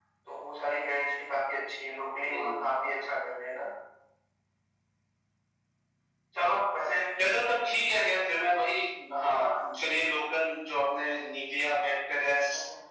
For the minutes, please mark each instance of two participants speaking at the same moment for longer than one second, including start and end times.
none

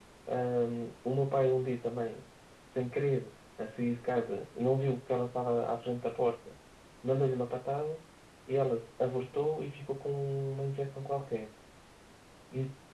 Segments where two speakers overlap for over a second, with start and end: none

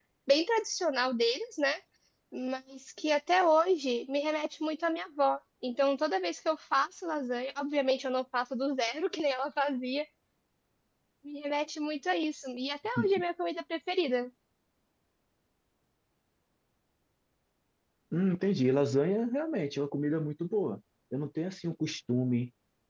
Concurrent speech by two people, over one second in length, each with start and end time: none

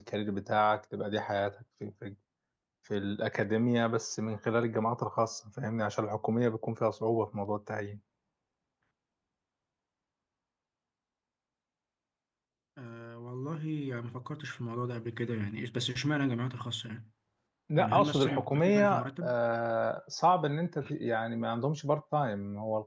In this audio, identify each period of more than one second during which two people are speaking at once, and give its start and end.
17.8-19.3

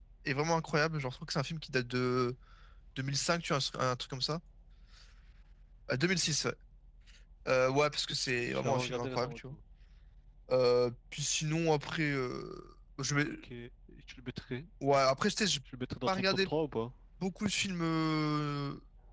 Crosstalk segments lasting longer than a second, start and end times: 8.1-9.4

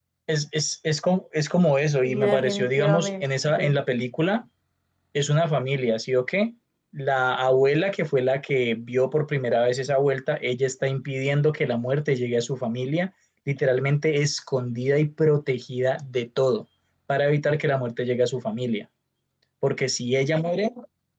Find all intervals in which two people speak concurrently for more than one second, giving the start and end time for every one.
2.0-3.8

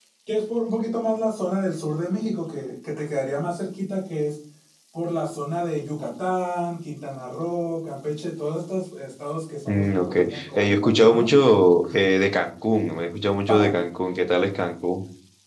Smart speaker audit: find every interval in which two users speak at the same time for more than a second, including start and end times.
9.7-11.3

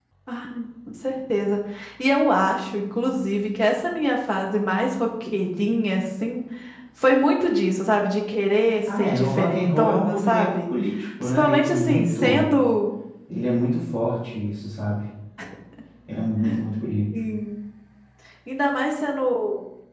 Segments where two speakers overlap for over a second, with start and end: 9.0-10.6, 11.2-12.5

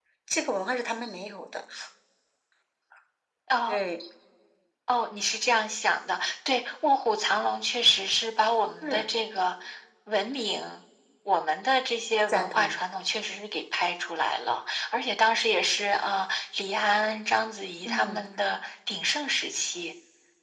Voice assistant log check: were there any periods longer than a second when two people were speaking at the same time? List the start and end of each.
none

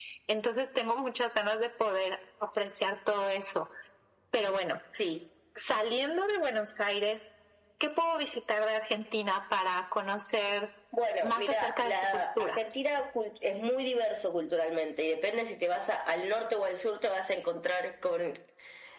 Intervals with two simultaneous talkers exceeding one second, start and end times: 11.2-12.6

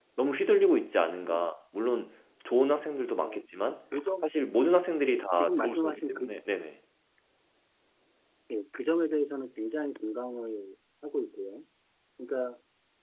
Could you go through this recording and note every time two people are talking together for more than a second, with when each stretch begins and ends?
5.0-6.3

